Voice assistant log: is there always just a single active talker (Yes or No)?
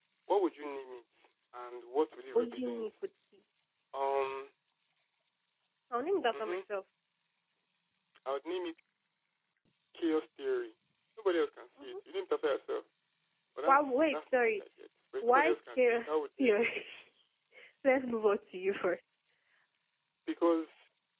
No